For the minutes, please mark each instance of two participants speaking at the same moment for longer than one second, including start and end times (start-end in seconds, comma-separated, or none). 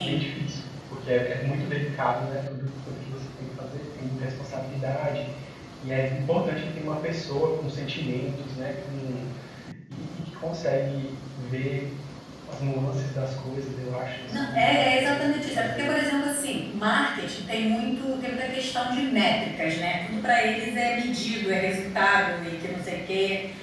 14.3-15.9